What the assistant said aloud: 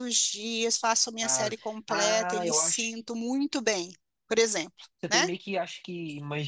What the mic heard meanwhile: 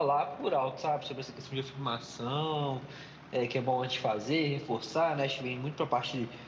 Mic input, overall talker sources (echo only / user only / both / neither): user only